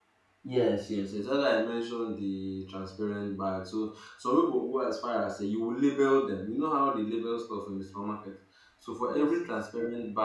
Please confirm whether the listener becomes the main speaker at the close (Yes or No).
No